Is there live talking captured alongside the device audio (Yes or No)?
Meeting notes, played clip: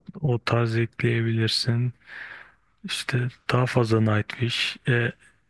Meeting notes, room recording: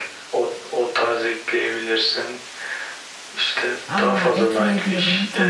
Yes